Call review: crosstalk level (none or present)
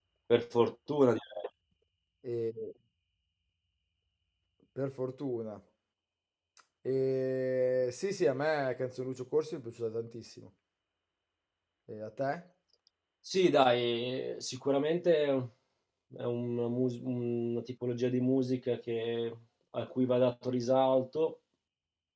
none